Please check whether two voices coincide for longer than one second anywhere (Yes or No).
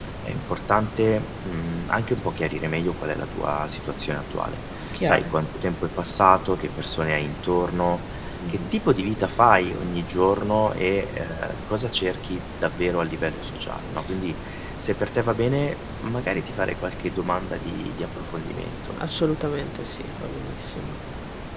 No